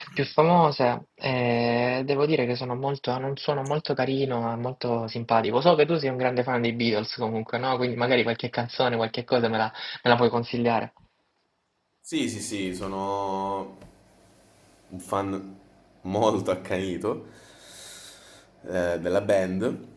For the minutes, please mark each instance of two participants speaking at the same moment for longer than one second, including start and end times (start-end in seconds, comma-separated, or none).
none